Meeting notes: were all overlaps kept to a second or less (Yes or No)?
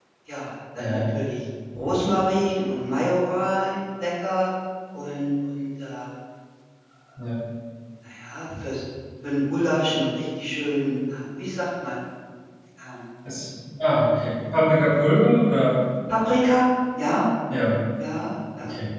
Yes